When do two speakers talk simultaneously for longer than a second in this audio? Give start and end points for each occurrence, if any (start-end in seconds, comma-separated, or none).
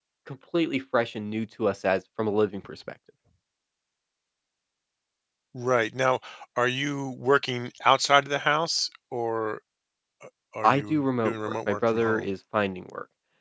10.6-12.3